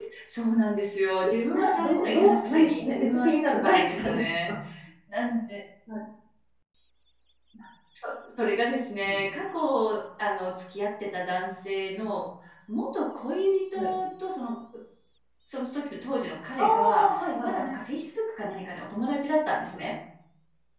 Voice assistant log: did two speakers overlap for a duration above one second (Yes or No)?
Yes